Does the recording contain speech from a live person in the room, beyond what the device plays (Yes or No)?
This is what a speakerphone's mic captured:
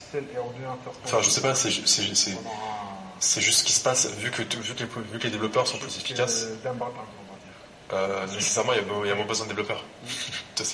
No